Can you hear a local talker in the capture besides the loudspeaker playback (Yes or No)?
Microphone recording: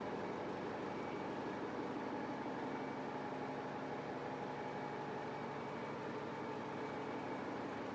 No